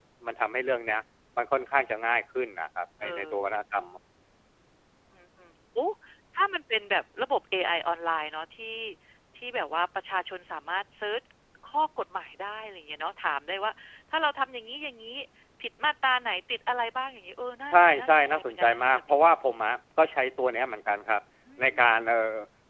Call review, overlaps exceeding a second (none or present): present